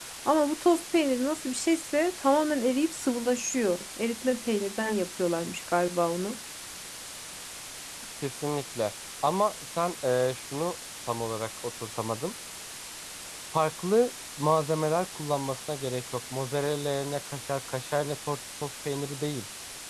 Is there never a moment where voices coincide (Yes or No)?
Yes